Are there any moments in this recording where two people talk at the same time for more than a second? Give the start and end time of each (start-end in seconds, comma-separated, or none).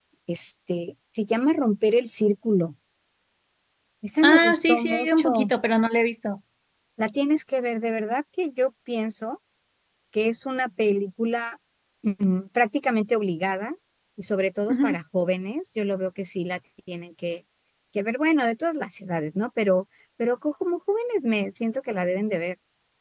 4.2-5.5